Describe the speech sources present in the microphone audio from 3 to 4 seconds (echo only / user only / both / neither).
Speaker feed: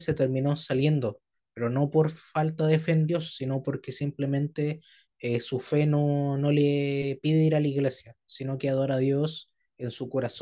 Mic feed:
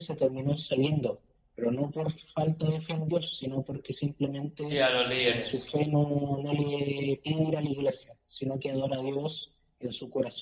echo only